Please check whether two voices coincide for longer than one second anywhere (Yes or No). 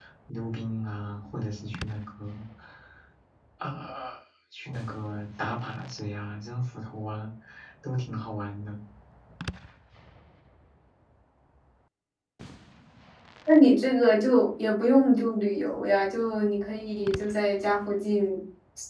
No